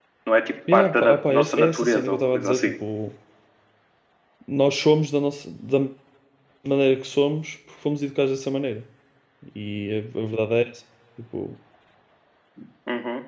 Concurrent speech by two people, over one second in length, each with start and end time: 0.7-2.7

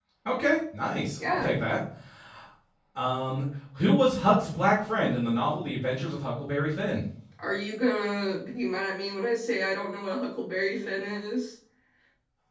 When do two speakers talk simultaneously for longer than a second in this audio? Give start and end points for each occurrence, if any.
none

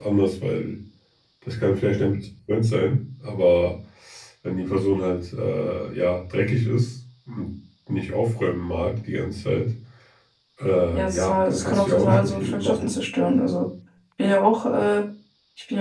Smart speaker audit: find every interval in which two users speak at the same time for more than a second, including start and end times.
10.9-12.9

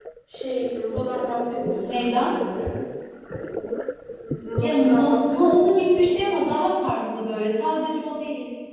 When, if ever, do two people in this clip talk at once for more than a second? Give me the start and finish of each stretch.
4.6-6.3

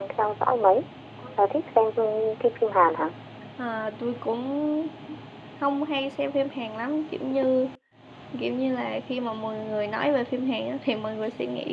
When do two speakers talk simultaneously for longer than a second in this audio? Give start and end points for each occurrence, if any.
none

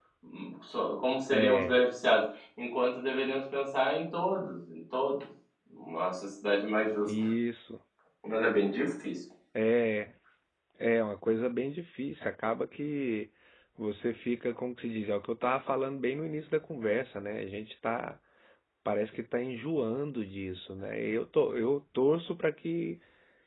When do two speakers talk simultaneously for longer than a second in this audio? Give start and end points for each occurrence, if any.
none

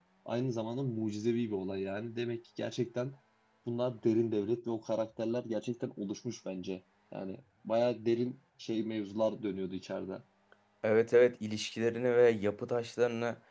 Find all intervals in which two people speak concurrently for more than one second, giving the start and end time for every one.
none

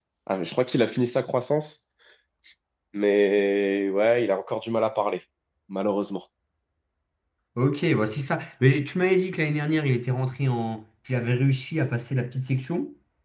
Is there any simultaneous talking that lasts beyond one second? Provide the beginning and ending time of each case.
none

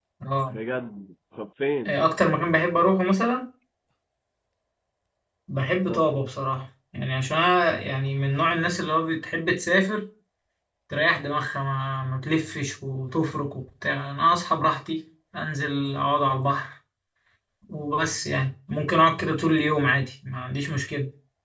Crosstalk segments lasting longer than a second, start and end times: none

